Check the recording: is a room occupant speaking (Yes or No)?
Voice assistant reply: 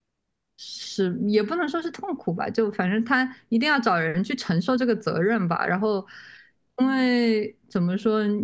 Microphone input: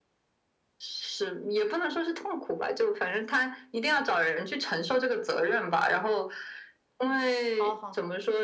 Yes